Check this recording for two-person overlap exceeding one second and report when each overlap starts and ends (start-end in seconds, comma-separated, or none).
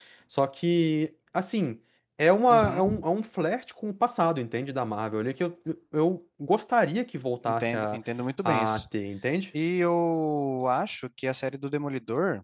none